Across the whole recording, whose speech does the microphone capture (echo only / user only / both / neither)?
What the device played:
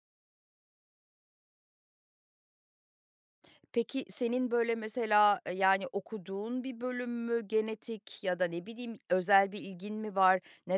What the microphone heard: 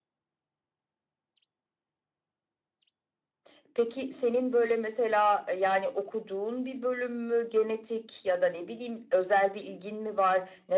echo only